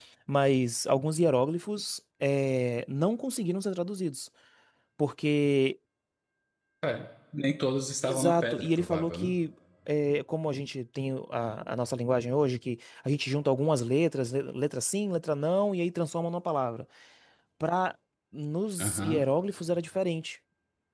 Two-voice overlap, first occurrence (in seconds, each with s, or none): 8.0 s